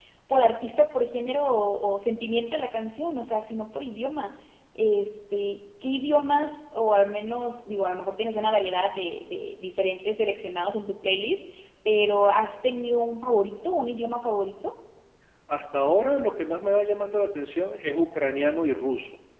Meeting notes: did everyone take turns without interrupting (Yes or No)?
Yes